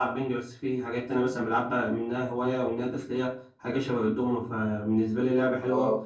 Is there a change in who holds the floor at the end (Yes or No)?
Yes